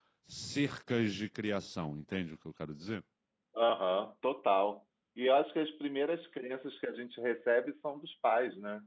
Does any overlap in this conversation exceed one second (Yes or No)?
No